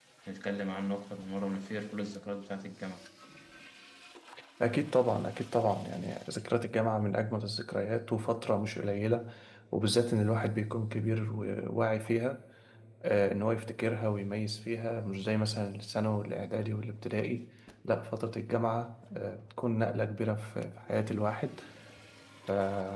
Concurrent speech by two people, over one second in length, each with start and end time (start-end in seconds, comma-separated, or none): none